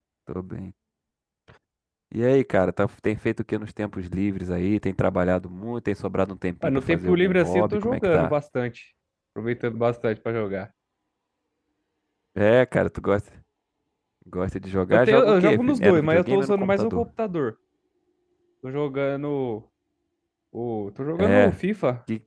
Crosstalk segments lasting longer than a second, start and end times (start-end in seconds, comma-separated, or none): 6.6-8.3, 14.9-17.1